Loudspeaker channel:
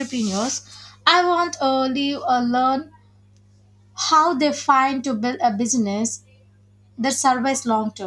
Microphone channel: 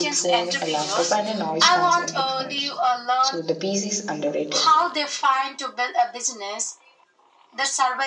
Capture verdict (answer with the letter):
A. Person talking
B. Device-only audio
A